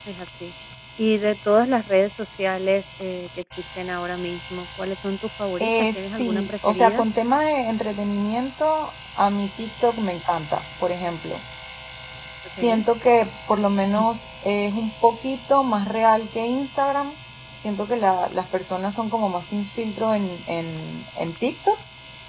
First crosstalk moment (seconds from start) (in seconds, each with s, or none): 5.6 s